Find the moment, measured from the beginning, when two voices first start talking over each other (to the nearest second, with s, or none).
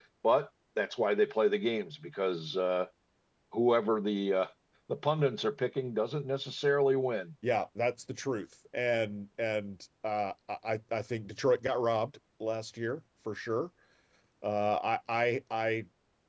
none